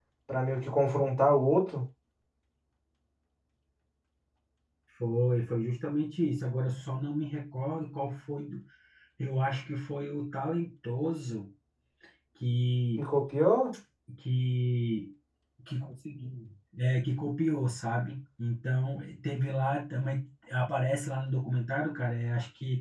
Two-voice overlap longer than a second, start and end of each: none

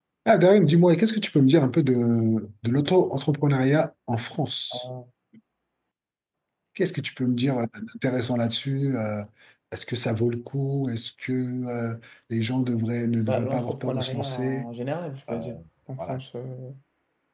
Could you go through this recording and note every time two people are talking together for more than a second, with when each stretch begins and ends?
13.3-14.7

